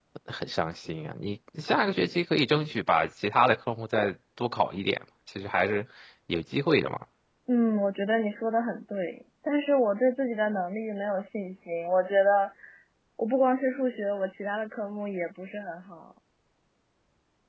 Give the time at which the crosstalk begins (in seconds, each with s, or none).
none